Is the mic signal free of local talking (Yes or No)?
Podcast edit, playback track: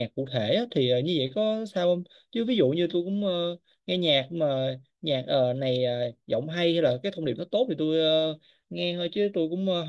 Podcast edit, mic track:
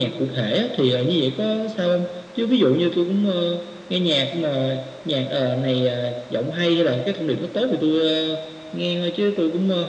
Yes